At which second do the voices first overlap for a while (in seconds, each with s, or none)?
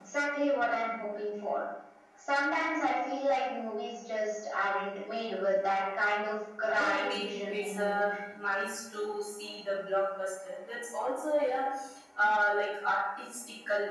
6.7 s